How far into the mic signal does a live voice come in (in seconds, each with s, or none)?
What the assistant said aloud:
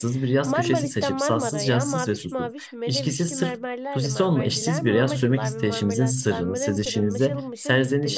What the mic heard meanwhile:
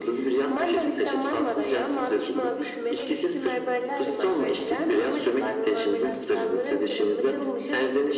none